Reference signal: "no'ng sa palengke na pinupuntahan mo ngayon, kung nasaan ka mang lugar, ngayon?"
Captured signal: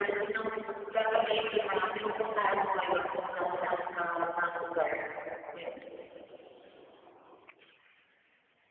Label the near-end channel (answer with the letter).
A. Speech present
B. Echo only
B